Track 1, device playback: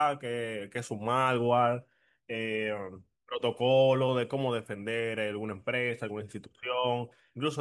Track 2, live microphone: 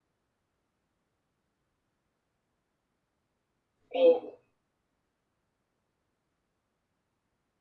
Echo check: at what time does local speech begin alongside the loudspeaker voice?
3.9 s

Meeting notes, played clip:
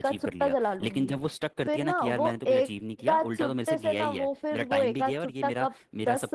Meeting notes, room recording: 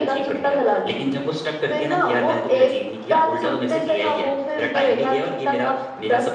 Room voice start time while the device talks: none

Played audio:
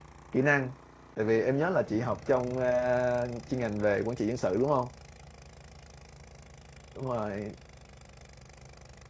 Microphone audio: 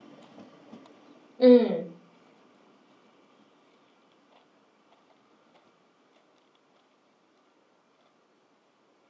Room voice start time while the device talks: 1.4 s

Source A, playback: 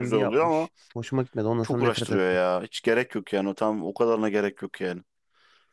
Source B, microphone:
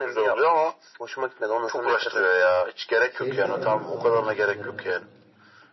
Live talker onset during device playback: 3.1 s

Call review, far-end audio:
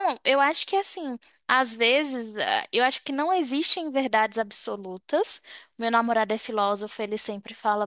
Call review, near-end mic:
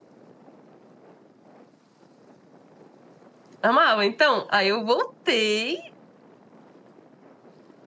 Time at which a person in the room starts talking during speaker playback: 3.6 s

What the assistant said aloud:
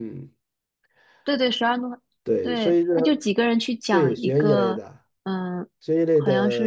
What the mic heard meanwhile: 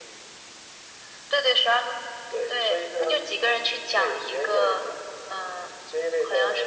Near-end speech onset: none

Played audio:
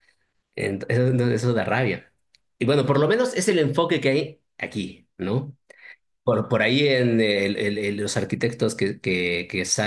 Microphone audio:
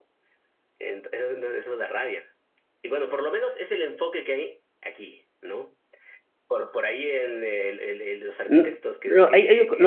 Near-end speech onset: 8.5 s

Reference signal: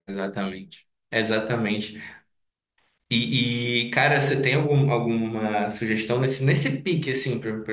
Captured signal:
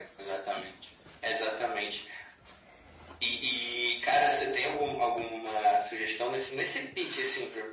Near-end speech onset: none

